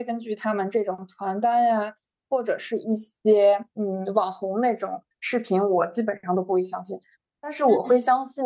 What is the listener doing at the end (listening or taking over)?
listening